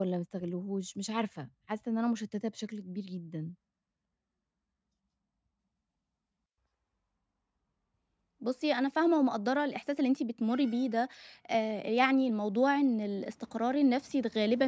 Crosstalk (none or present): none